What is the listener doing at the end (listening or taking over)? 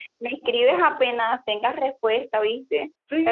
taking over